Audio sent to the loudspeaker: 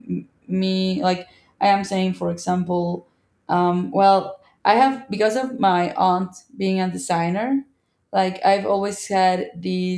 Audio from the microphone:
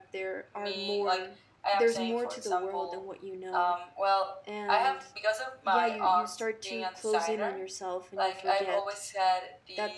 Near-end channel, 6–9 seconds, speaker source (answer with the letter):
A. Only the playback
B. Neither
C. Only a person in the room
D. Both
D